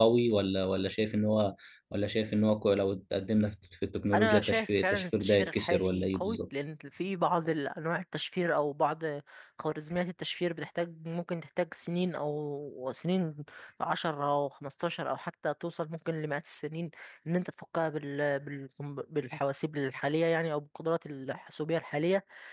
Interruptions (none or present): present